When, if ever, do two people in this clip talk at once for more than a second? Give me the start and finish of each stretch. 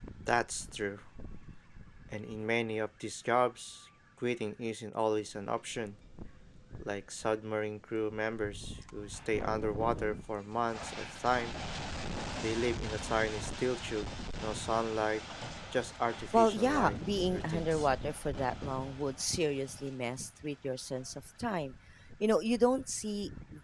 16.3-17.9

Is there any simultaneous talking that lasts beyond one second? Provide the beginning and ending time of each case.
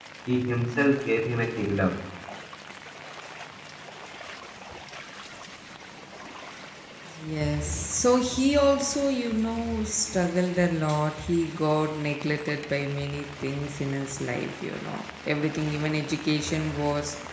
none

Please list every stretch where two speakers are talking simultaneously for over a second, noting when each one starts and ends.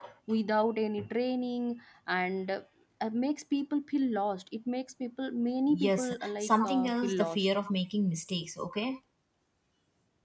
5.7-7.5

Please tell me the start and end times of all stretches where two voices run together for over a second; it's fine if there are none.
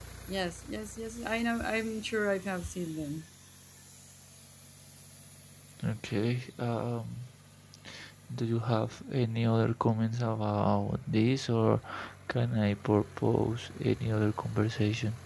none

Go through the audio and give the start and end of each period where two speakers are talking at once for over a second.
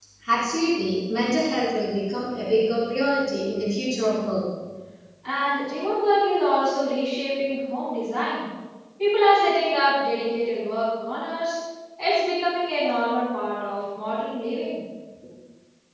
none

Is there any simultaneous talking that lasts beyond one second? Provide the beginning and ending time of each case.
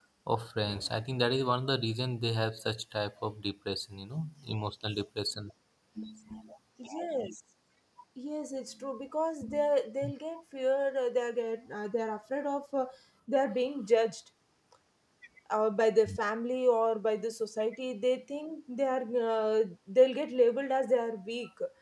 none

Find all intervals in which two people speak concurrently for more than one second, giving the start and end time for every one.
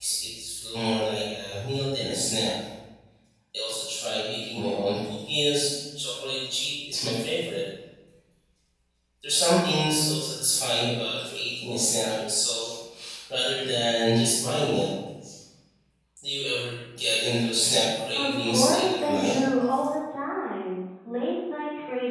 18.1-19.4

